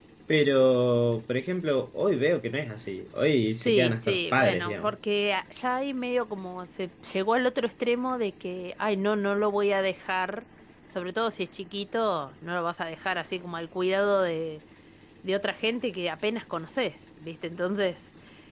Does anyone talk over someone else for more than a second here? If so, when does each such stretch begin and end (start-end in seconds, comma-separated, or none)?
3.5-5.0